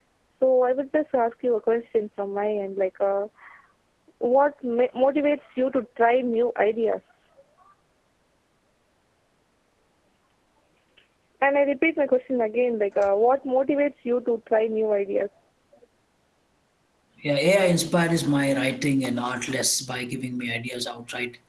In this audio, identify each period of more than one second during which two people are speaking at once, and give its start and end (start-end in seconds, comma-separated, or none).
none